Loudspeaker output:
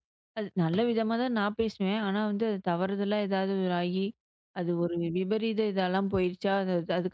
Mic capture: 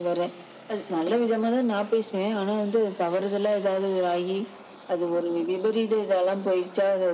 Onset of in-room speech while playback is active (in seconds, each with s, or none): none